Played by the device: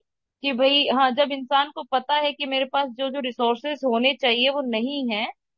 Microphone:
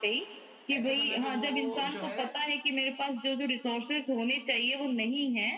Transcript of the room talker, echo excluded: ऐसे समय पे वो जो है

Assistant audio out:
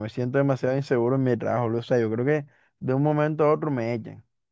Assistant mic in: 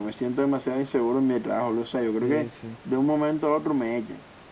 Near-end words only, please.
sí, sí.

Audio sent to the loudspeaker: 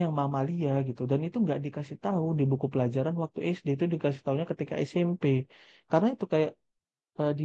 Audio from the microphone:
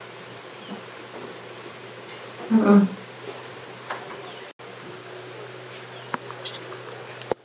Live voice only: Heeh.

